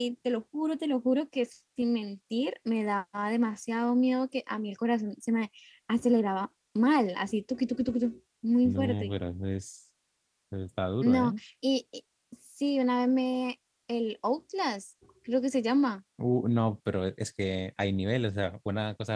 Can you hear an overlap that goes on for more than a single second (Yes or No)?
No